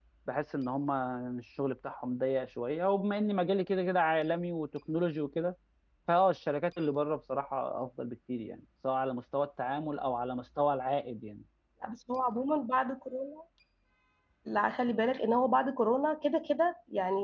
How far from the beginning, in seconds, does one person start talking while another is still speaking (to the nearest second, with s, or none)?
none